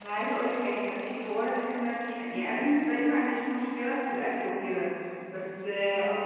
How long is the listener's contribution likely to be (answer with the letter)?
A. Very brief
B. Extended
A